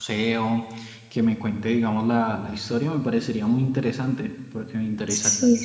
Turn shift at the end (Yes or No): Yes